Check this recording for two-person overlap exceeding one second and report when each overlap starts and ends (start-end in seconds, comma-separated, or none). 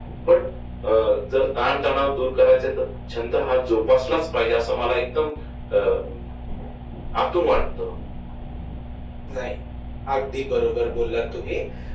none